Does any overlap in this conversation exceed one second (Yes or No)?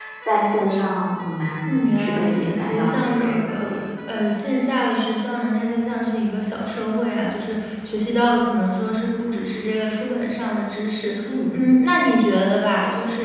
Yes